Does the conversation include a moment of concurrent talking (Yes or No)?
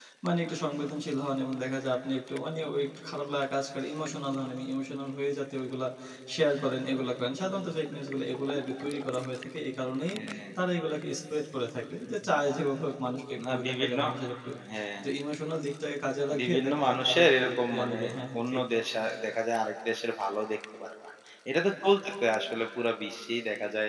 Yes